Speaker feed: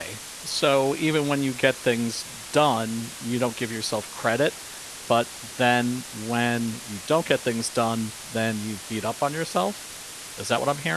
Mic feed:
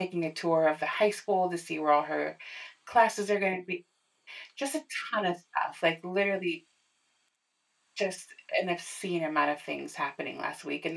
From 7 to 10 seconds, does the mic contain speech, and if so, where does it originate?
user only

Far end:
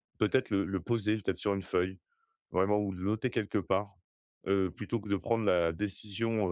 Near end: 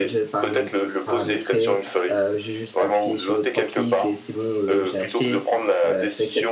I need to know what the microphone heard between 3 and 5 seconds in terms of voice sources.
both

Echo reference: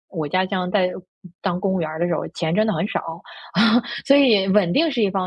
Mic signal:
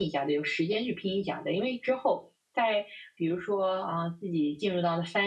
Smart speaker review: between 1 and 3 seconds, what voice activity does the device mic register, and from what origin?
user only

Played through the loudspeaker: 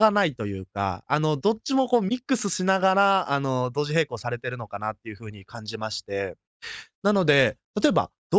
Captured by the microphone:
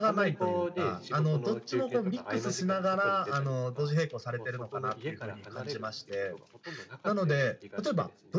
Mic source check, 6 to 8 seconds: both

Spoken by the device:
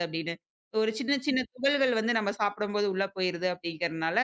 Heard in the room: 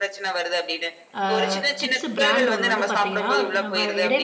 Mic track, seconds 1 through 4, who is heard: both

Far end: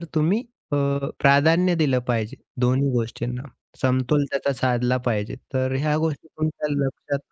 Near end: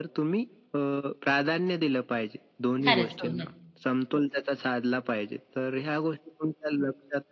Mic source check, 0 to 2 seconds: echo only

